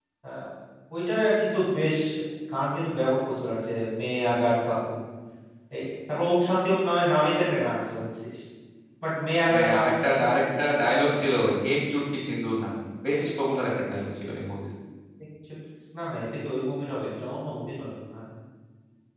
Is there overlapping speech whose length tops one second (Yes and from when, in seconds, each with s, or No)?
No